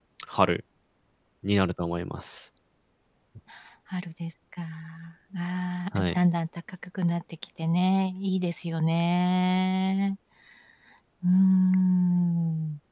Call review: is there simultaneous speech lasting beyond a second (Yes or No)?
No